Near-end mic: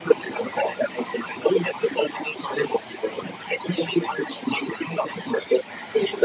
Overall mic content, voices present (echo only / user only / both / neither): echo only